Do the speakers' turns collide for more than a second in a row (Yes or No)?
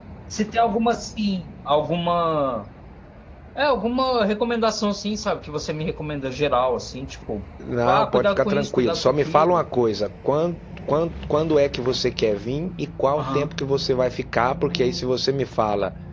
Yes